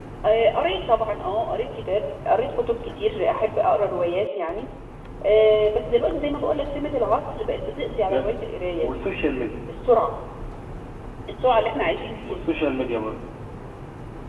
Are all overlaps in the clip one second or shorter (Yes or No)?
Yes